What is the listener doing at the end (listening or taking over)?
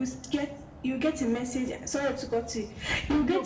listening